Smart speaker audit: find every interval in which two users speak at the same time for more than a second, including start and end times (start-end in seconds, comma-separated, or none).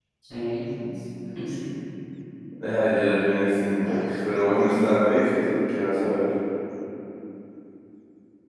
none